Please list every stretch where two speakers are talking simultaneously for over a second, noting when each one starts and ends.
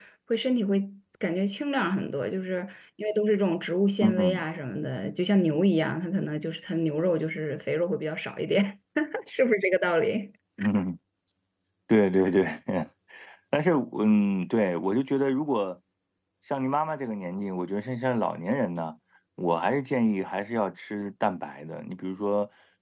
none

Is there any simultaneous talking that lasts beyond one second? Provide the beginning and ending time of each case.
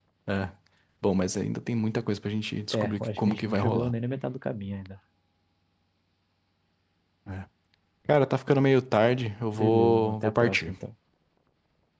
2.7-3.9, 9.5-10.7

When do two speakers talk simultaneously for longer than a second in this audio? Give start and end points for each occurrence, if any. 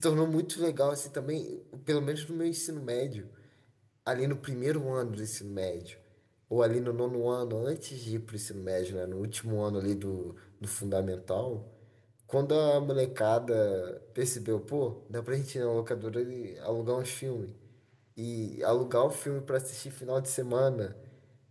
none

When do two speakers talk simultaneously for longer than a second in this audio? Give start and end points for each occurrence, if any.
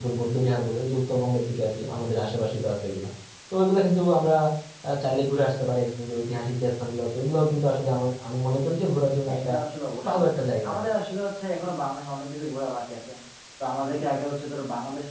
none

